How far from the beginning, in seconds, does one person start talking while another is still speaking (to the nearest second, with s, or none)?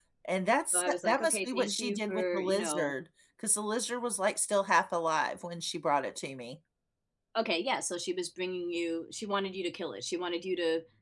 1 s